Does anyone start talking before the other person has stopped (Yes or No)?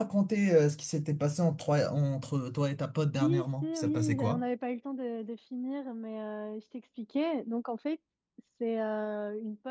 Yes